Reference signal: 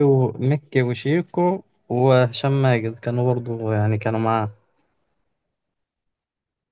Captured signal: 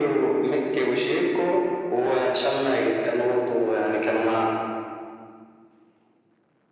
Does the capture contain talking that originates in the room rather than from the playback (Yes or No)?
No